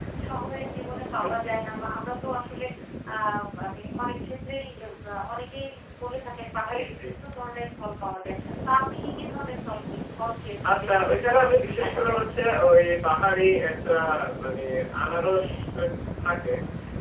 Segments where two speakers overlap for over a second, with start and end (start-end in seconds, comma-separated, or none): 10.7-12.3